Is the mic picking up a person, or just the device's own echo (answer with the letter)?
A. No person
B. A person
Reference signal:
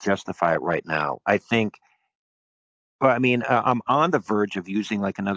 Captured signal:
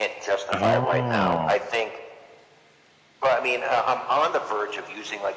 B